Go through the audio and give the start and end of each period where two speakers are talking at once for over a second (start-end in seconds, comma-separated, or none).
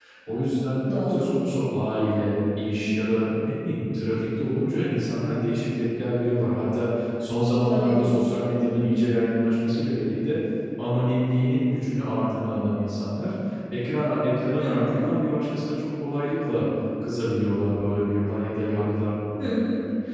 none